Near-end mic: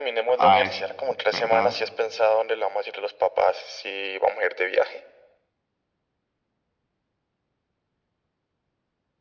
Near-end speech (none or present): present